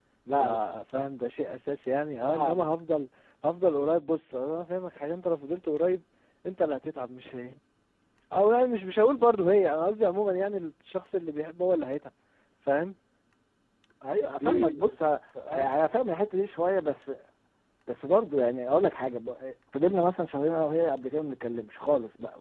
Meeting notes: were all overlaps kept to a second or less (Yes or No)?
Yes